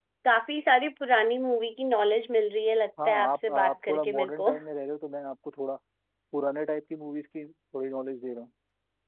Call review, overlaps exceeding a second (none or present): present